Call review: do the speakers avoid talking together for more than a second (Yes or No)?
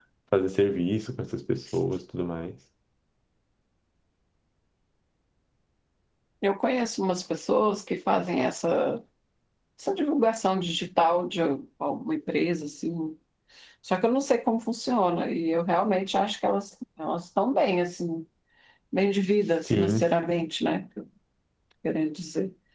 Yes